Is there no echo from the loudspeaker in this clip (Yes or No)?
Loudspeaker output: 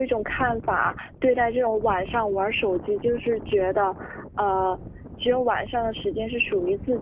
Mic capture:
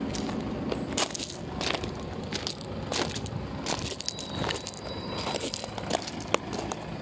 Yes